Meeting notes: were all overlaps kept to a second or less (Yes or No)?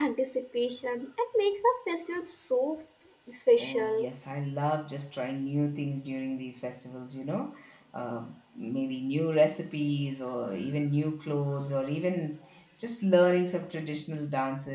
Yes